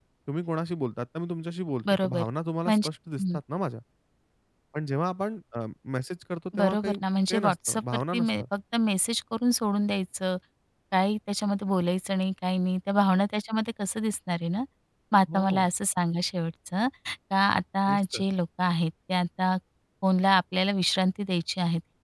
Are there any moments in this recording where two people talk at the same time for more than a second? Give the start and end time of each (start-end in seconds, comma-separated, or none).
6.6-8.4